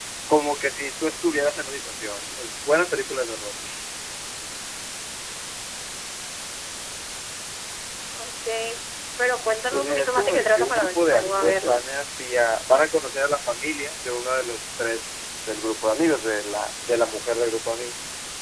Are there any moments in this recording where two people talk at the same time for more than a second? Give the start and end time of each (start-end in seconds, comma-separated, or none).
9.7-11.8